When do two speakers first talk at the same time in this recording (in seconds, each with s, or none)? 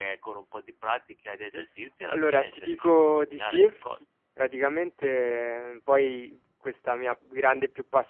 2.1 s